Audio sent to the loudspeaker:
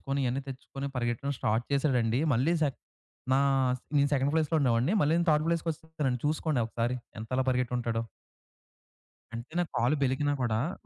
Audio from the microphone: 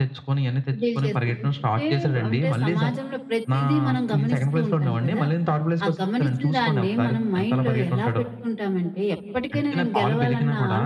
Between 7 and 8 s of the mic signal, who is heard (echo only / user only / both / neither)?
both